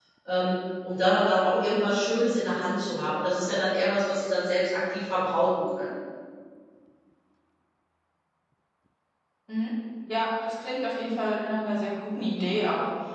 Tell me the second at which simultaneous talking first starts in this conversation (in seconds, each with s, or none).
none